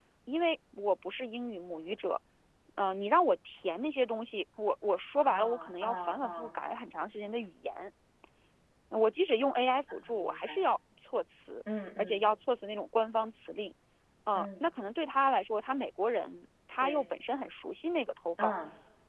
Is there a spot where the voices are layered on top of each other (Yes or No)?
Yes